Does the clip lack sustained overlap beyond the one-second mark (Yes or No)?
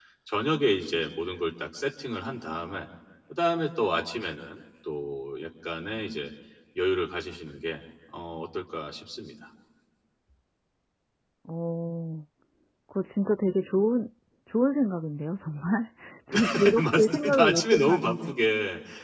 No